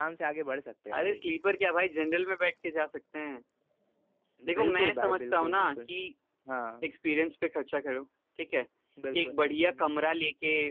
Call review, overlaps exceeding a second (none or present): present